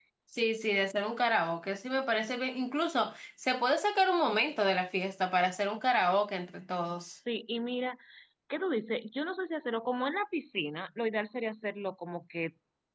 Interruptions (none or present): none